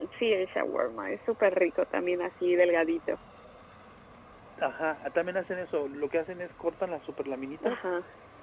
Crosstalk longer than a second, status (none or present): none